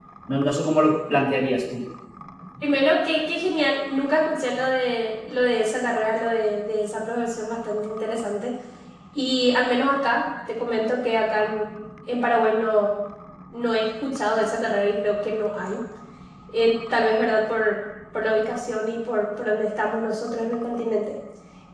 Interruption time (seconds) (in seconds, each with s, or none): none